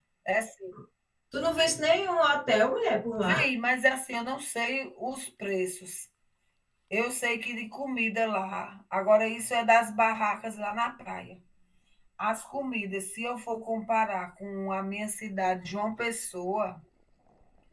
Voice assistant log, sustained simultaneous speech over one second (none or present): none